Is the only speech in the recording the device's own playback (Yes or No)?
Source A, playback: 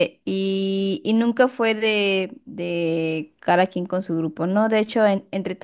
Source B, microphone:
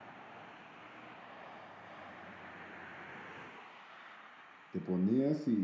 No